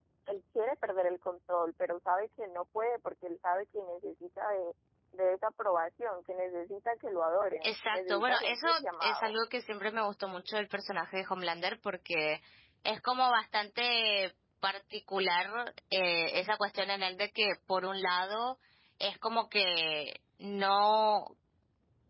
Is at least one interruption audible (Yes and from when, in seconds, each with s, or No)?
Yes, from 7.6 s